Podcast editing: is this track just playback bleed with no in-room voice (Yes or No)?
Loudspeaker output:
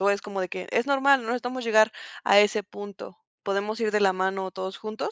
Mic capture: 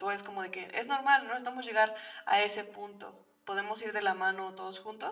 Yes